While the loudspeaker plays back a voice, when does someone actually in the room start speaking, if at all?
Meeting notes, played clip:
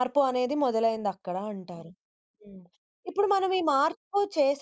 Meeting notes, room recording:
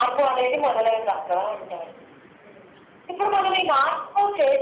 none

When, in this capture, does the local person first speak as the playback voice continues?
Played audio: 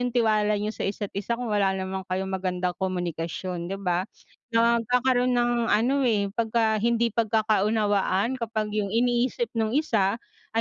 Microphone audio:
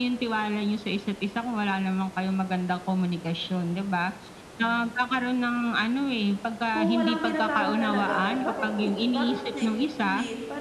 7 s

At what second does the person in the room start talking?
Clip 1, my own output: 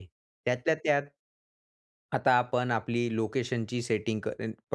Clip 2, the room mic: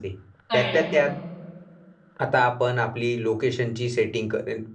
1 s

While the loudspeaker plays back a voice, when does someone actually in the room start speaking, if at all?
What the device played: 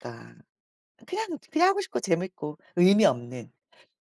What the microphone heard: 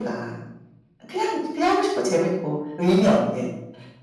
none

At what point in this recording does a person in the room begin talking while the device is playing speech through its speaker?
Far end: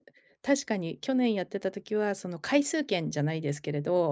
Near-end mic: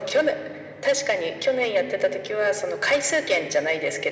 none

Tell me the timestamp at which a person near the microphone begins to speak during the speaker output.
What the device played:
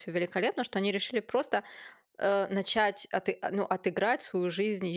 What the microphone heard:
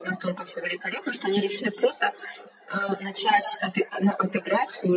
none

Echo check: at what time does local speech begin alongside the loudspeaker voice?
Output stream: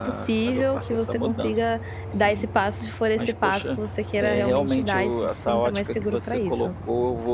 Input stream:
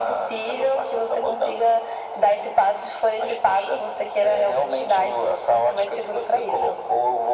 none

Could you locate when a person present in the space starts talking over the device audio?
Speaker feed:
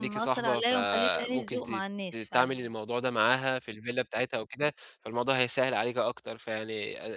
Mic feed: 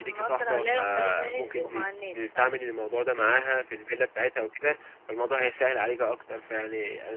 none

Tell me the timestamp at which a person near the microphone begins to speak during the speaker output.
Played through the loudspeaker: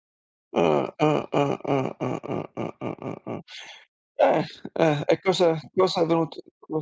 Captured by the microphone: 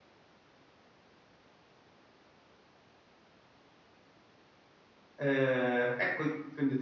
5 s

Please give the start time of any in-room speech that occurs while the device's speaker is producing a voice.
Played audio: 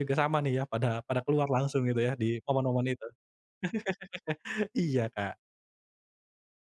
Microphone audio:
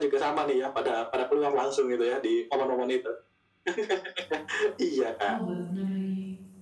5 s

